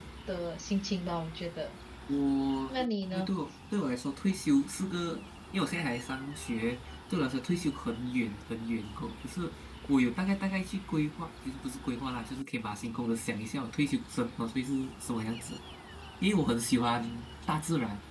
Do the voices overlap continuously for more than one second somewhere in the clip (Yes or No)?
No